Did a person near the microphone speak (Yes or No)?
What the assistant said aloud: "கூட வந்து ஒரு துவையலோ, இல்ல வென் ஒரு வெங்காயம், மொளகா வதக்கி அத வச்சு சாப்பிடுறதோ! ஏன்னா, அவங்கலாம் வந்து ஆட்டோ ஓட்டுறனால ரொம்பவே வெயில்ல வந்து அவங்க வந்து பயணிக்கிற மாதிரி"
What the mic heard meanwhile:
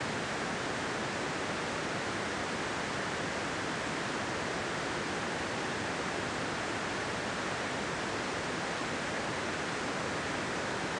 No